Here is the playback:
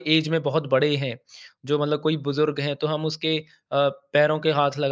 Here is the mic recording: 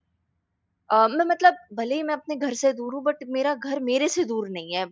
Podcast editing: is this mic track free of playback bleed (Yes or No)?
Yes